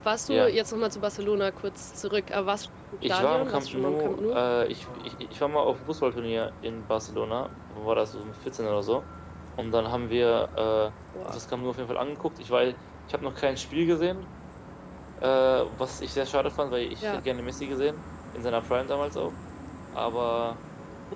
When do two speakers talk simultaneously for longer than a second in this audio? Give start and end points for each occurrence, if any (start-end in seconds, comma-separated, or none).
3.0-4.4